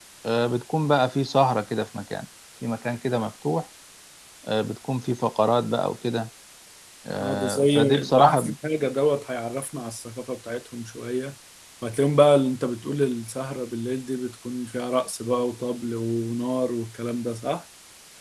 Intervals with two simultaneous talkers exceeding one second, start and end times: 7.2-8.5

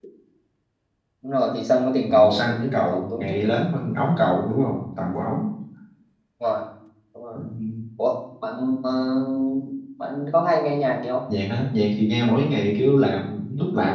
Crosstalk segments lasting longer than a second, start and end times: 2.1-3.4

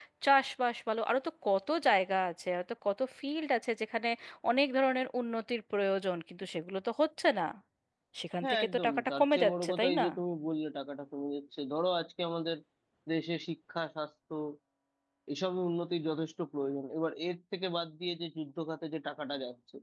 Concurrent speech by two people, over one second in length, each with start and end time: 8.4-10.1

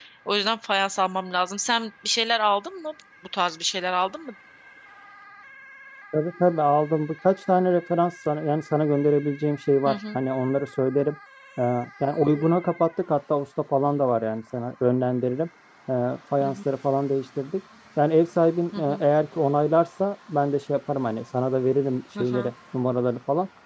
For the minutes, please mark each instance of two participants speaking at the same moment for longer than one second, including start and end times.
none

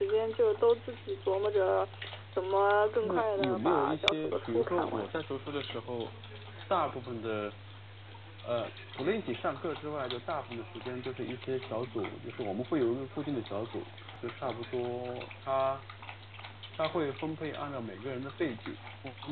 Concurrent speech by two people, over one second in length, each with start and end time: 3.0-5.1

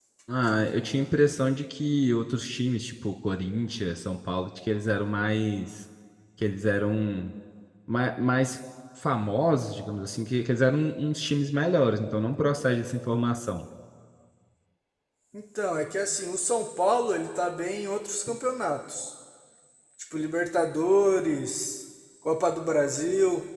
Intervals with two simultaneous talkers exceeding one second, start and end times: none

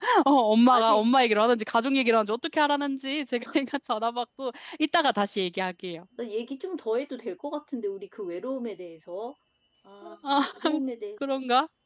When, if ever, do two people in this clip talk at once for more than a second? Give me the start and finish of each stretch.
none

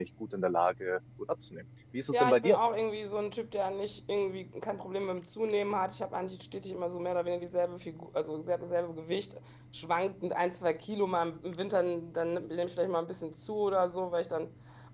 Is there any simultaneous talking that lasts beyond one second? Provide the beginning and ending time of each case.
none

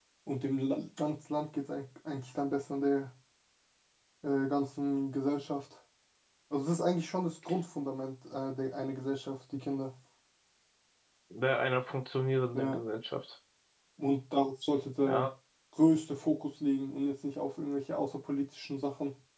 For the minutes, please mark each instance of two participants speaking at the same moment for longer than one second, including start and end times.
none

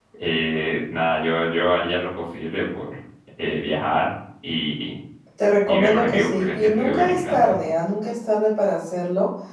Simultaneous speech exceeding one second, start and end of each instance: 5.7-7.6

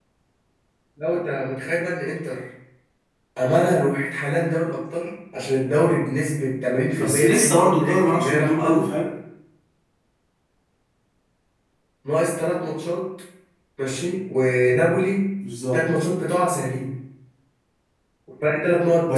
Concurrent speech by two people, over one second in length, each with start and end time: 7.0-8.9

